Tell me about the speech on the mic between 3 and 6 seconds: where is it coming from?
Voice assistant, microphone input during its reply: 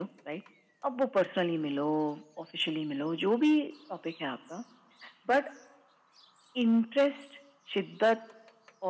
echo only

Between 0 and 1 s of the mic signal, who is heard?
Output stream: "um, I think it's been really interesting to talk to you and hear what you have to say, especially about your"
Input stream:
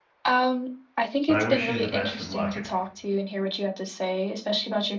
echo only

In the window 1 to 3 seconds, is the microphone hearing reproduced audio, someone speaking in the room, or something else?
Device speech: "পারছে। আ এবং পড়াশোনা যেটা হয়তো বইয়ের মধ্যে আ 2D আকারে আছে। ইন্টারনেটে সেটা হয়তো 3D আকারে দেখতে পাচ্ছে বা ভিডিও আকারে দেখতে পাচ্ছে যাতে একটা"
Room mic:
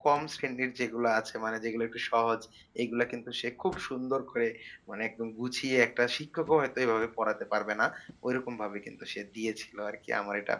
user only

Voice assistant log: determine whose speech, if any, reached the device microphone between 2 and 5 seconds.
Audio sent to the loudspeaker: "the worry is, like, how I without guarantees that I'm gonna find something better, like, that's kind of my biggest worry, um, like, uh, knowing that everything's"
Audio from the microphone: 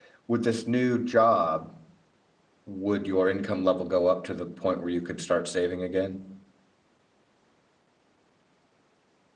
user only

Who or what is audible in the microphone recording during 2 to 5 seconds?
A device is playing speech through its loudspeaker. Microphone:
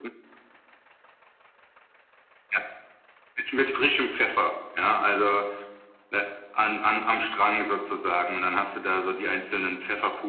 echo only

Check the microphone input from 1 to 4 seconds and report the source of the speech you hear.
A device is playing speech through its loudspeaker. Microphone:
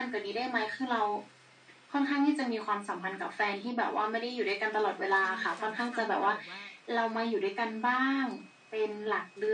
echo only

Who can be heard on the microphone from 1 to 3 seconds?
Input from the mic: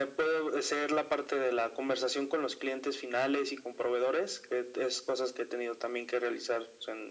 echo only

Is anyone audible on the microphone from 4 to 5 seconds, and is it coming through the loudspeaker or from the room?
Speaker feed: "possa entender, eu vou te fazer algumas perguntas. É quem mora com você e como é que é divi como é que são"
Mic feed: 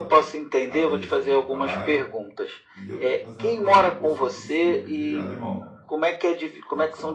both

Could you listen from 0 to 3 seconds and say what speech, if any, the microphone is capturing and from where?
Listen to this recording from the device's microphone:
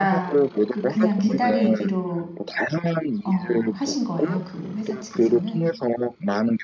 both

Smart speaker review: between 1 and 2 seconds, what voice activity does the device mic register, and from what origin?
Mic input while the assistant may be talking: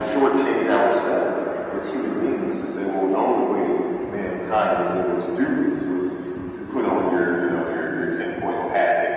echo only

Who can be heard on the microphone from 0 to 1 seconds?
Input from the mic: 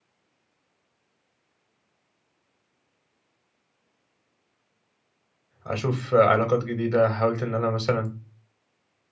neither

